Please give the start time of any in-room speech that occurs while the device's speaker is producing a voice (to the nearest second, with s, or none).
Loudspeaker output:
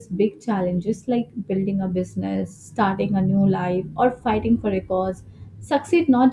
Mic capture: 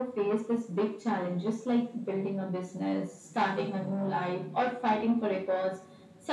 none